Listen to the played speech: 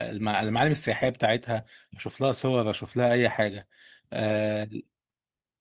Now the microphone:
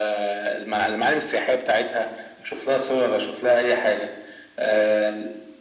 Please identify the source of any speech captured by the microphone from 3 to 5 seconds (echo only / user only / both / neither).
echo only